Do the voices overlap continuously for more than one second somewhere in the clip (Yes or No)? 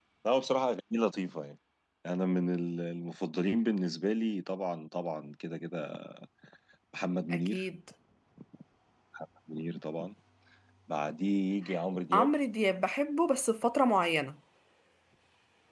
No